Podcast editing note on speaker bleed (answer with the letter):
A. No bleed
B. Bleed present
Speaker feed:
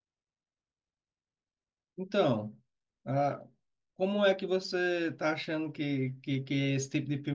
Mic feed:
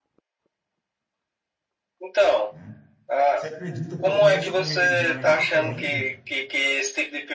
B